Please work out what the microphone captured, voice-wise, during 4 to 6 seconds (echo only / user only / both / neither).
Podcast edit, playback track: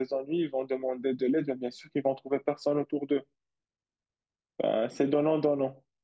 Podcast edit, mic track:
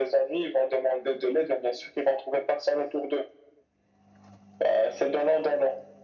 echo only